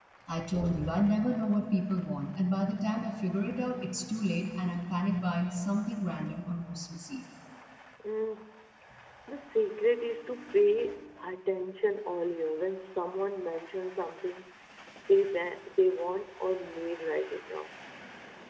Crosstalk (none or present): none